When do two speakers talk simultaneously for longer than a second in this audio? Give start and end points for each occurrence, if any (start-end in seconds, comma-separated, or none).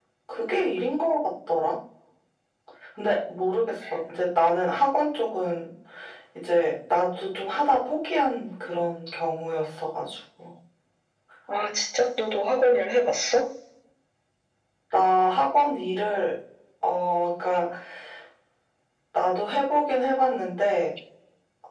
none